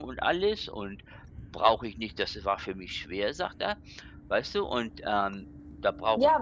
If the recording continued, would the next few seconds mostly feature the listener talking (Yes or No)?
Yes